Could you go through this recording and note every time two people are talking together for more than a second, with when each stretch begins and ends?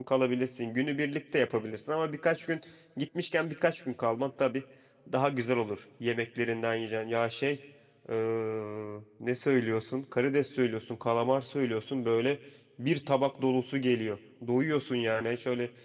none

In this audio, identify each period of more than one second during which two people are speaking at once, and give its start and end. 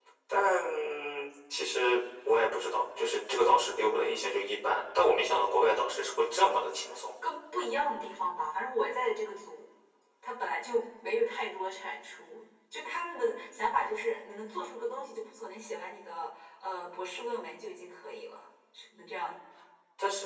none

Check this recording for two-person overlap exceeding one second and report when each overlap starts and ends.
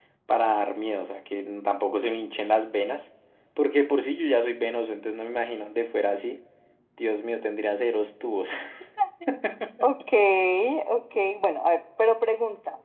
none

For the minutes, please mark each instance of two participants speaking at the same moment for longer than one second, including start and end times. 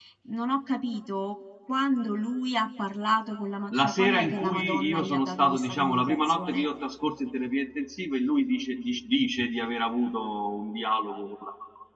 3.7-6.7

